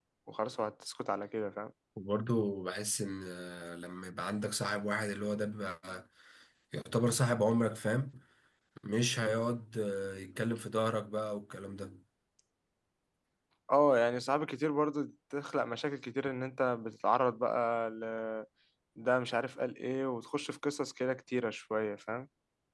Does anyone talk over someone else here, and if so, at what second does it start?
none

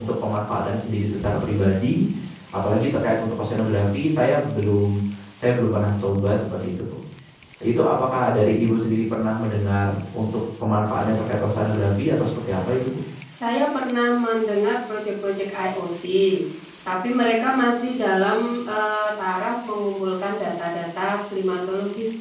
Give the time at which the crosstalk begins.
none

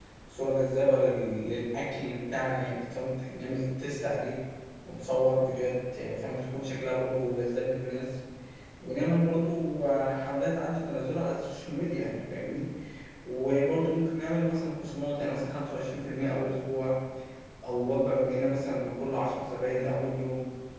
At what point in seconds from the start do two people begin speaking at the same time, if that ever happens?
none

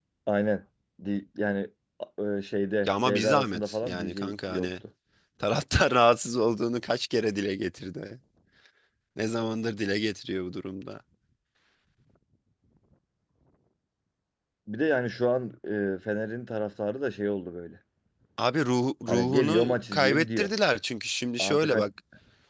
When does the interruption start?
2.8 s

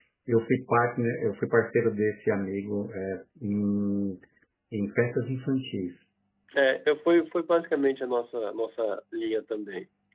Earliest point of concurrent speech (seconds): none

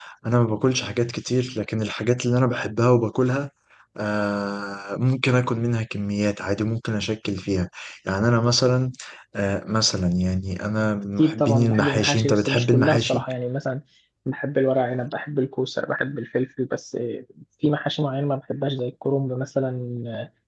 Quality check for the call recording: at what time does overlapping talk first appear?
11.2 s

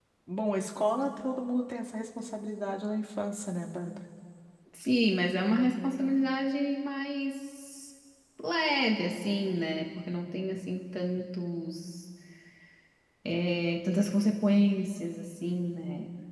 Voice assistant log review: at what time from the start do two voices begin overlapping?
none

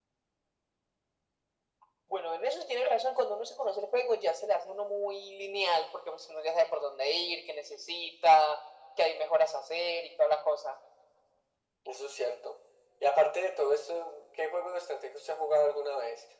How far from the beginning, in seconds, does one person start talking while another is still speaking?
none

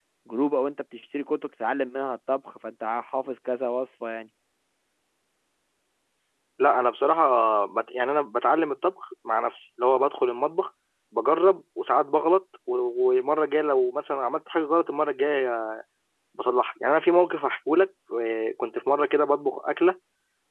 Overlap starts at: none

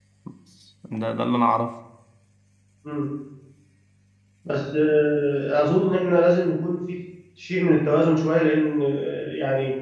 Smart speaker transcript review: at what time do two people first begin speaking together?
none

